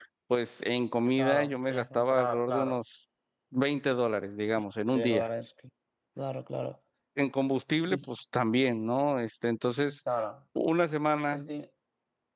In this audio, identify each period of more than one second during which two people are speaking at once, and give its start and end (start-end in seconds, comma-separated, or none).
1.2-2.8